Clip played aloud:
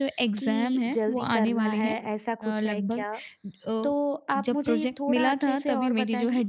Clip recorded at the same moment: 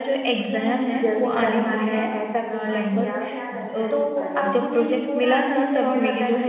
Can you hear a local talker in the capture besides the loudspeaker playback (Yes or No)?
Yes